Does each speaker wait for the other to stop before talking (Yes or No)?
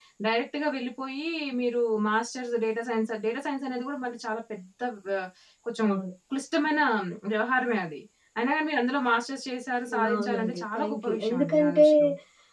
No